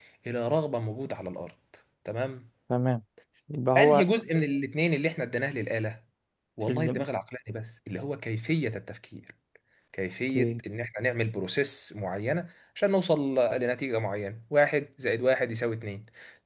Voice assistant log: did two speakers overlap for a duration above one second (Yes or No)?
No